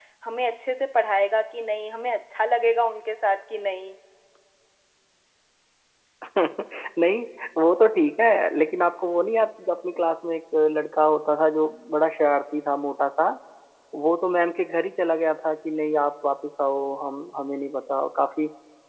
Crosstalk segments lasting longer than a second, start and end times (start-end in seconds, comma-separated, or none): none